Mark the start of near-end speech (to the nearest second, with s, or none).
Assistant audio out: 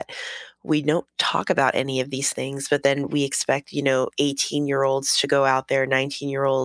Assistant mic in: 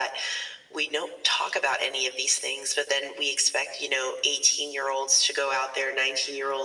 none